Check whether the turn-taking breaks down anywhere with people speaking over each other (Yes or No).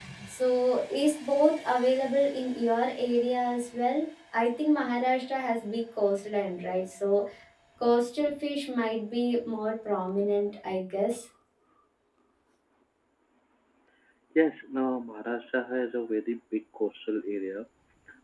No